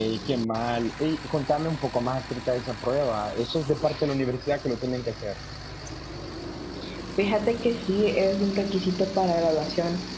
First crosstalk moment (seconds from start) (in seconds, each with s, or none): none